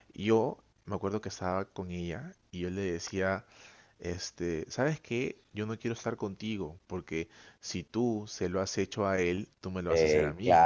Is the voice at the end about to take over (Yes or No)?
Yes